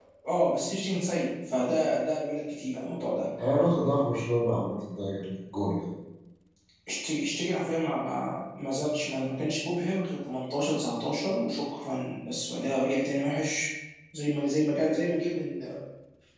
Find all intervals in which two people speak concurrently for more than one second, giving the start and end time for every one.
none

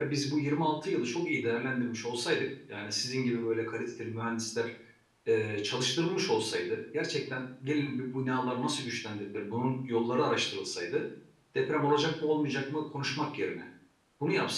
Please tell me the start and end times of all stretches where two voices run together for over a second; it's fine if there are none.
none

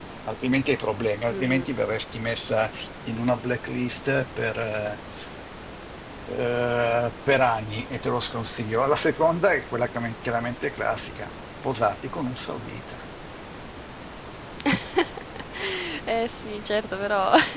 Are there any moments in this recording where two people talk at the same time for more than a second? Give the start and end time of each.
none

